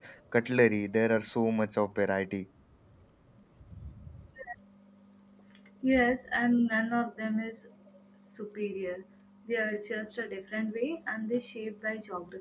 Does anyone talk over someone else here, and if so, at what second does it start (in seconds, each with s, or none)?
none